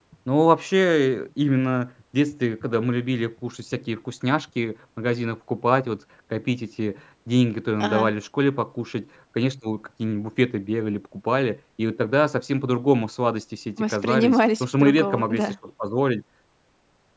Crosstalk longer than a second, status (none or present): present